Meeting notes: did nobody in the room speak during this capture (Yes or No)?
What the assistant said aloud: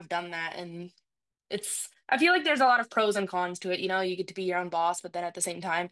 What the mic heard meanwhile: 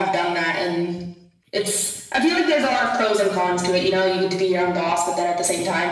Yes